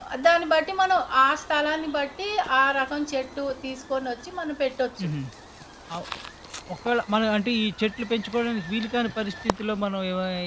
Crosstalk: none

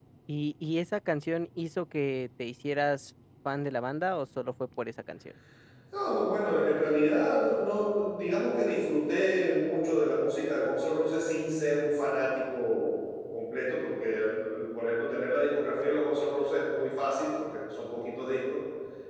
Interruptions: none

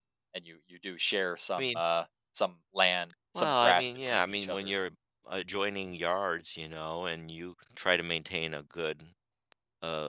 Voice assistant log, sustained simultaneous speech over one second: present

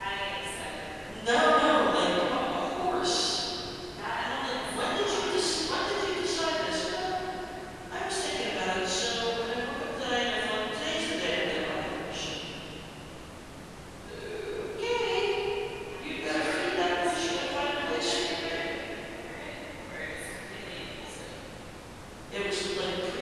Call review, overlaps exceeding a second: present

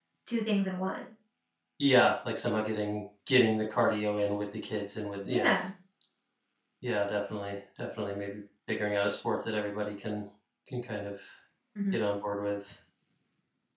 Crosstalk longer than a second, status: none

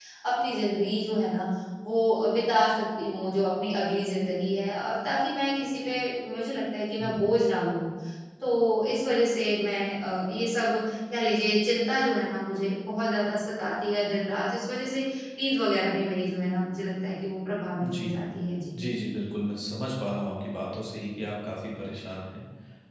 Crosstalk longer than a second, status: none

